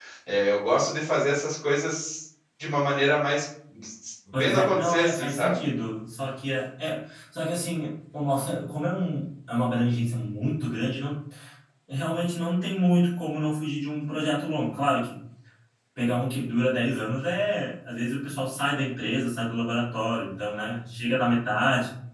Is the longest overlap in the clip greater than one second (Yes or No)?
Yes